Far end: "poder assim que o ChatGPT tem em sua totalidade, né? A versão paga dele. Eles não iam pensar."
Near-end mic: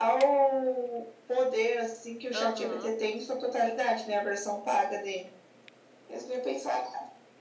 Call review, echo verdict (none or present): present